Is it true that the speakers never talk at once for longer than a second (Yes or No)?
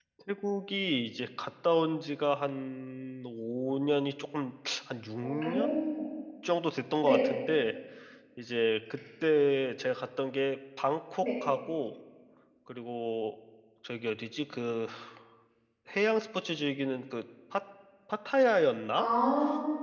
Yes